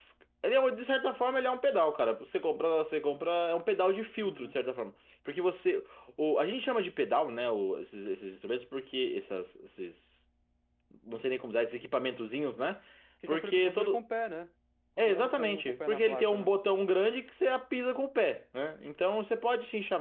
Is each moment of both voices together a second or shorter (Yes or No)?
No